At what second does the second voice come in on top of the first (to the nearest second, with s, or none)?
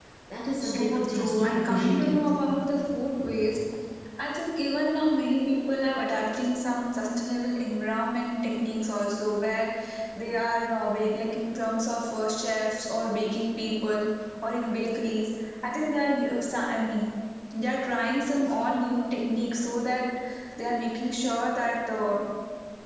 1 s